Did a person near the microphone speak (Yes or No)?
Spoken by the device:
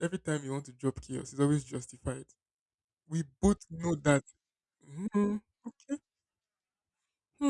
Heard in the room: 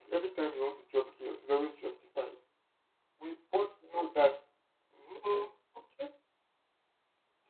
No